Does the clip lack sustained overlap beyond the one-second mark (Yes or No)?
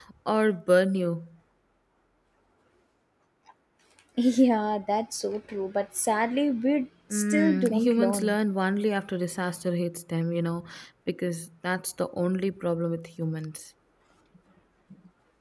No